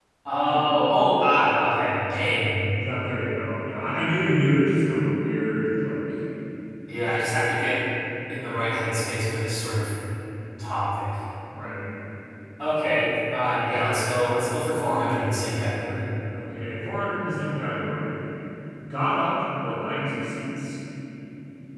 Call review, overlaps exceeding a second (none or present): none